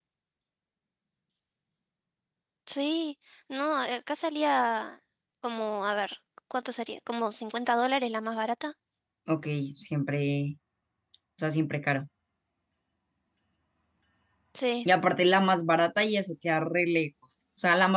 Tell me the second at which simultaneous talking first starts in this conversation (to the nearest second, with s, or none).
none